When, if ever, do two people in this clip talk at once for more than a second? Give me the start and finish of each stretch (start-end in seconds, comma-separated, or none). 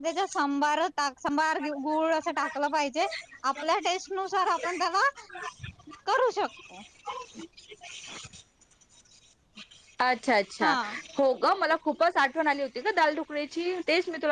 none